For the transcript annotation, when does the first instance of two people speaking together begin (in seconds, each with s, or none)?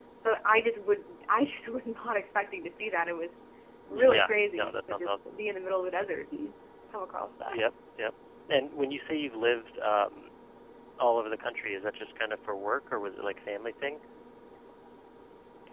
3.9 s